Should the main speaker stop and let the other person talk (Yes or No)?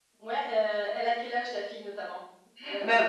Yes